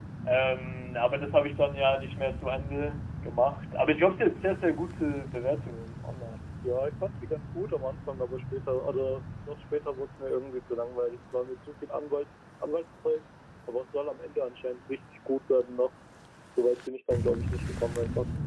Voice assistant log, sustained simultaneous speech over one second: none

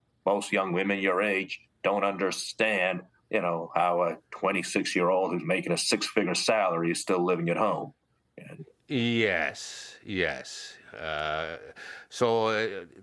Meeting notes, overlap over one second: none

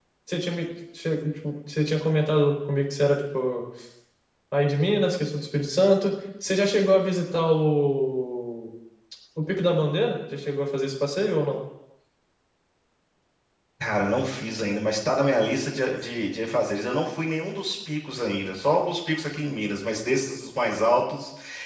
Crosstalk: none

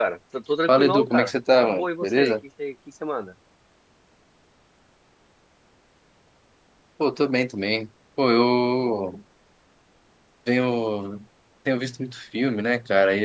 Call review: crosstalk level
present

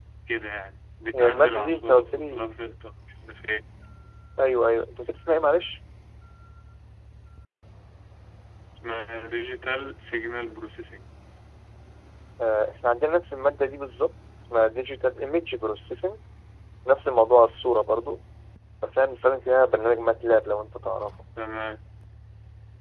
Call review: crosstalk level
present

